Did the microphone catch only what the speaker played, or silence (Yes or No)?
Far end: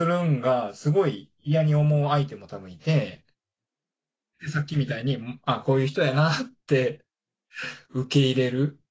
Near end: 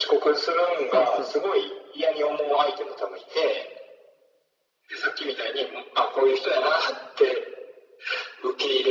No